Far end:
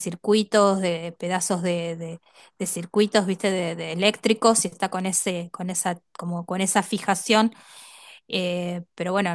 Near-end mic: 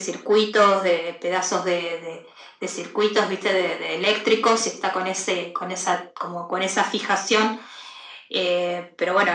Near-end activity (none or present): none